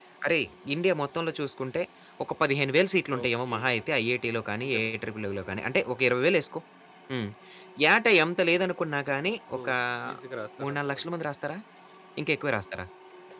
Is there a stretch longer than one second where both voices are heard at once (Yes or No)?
No